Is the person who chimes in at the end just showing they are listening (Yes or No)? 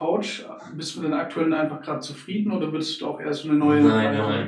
No